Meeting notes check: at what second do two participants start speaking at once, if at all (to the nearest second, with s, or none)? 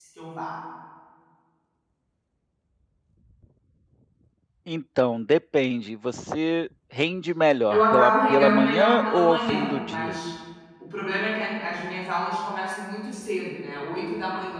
8 s